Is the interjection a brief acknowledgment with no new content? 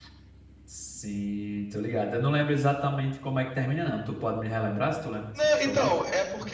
No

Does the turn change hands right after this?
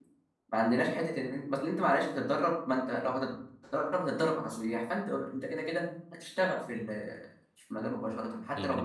Yes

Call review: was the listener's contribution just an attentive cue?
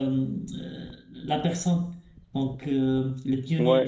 No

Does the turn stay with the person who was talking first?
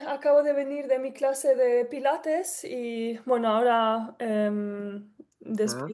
Yes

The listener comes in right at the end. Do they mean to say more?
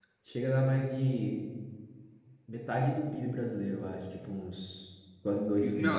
Yes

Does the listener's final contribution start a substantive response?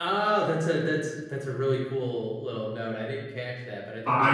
Yes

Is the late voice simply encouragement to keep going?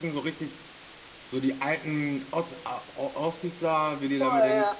No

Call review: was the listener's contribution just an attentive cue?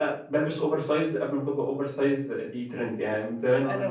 Yes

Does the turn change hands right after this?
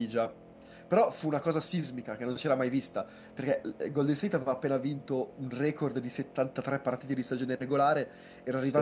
No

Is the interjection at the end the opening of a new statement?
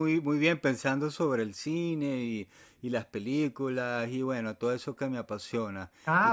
Yes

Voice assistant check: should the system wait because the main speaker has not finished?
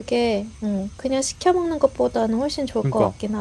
No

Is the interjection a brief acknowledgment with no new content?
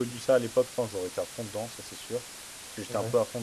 Yes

